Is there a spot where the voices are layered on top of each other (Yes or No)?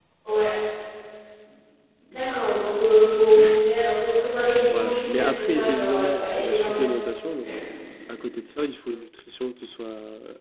Yes